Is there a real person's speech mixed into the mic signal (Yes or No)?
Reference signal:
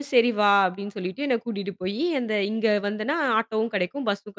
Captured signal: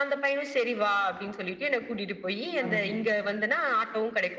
Yes